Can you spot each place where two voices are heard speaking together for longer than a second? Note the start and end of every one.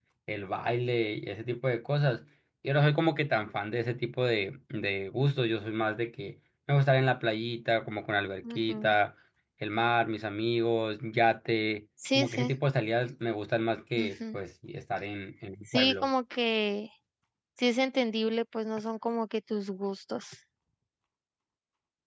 none

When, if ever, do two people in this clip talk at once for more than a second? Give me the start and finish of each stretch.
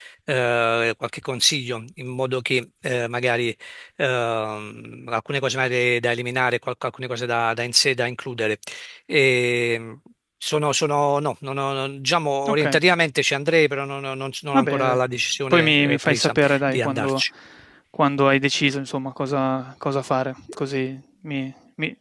15.5-17.2

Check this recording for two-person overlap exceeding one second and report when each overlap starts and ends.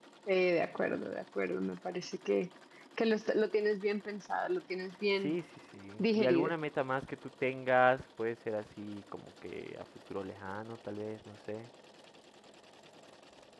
none

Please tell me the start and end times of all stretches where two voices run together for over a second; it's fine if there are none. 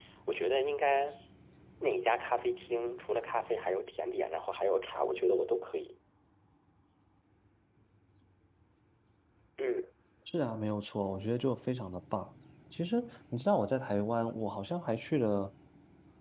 none

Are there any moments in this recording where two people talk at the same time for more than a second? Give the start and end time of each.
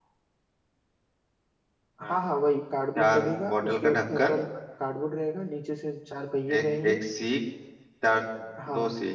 3.0-4.3

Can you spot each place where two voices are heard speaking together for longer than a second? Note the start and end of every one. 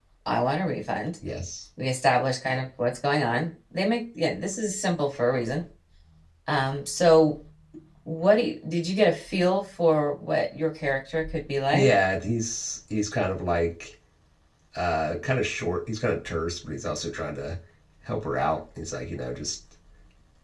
none

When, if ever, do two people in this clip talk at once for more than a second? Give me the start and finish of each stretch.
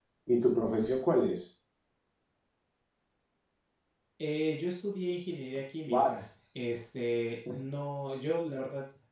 none

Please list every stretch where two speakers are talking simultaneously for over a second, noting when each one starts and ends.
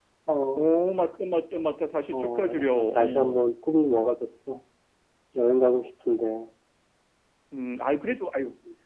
2.1-3.4

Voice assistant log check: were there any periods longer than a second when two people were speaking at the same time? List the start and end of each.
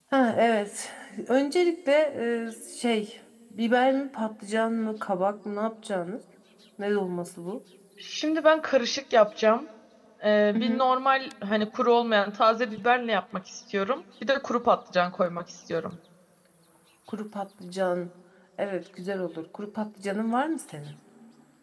none

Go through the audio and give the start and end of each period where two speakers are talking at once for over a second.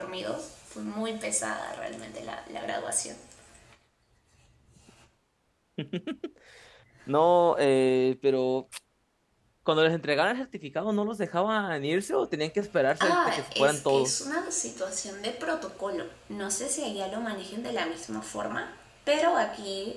13.0-14.2

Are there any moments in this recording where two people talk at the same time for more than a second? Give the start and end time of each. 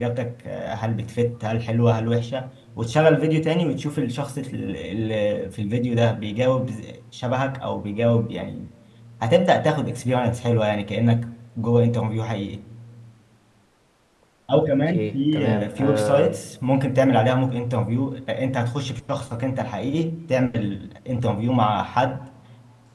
14.9-16.4

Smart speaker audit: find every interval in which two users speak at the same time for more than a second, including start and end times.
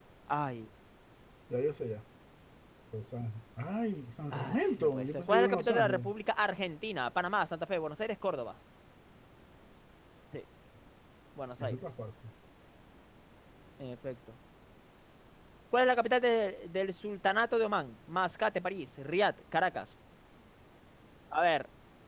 4.3-6.1

